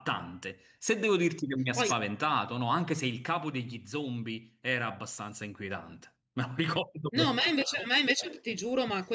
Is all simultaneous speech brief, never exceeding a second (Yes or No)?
Yes